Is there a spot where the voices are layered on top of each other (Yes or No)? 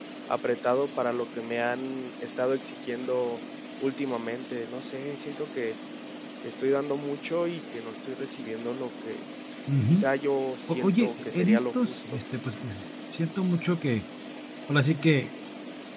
Yes